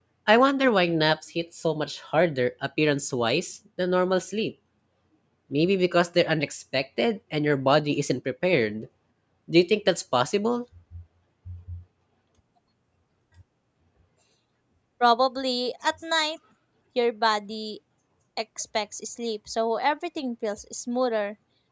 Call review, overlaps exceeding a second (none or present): none